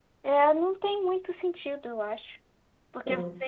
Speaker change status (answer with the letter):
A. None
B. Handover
A